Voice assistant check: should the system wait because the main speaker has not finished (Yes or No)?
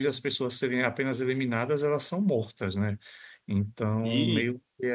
Yes